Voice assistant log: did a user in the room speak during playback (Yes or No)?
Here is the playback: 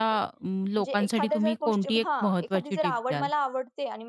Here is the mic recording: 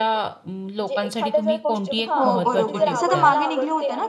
Yes